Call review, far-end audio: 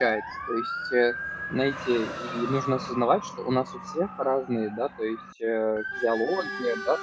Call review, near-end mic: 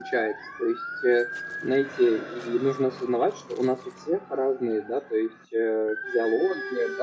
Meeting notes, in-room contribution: none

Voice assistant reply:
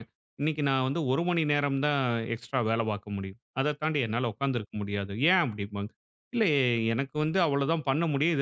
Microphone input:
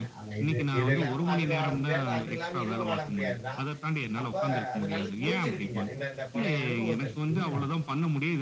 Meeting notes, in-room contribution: present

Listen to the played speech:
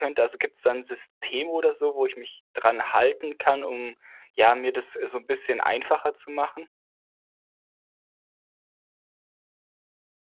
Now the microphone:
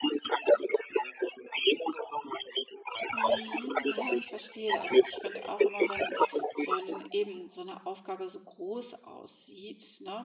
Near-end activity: present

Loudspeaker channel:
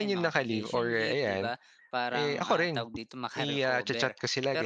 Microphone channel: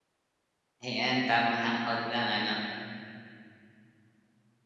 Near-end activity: present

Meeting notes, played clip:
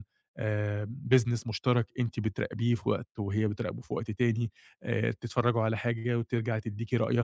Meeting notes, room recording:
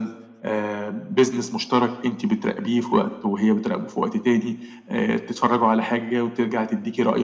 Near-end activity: none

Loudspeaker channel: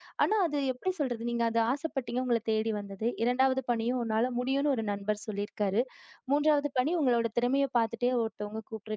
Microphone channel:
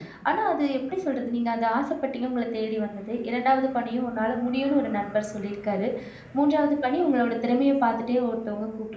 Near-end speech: none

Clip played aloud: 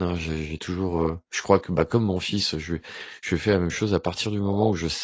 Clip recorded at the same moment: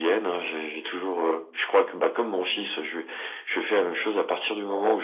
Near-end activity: none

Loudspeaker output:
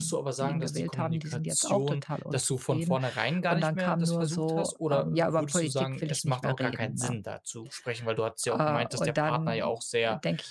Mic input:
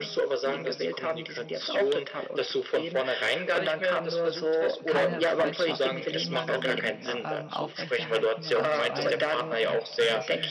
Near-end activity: present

